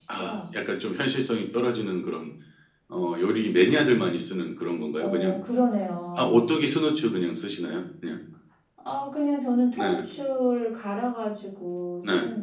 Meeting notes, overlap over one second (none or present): none